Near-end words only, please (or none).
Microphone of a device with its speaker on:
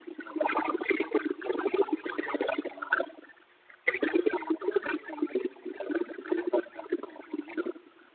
none